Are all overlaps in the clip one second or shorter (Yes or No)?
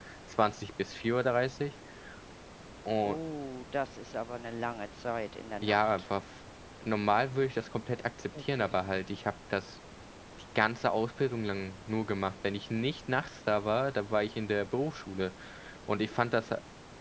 Yes